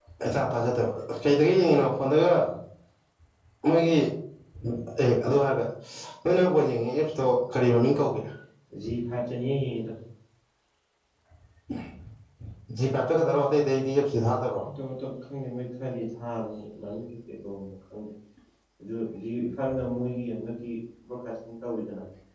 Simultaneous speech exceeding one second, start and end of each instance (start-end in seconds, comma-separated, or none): none